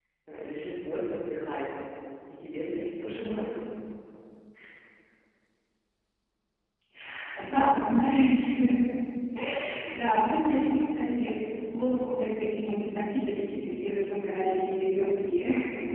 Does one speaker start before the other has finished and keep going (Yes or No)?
No